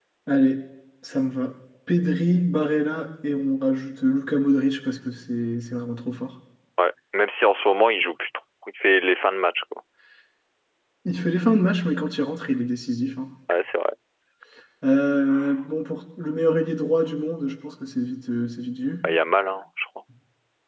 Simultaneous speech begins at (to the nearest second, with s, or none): none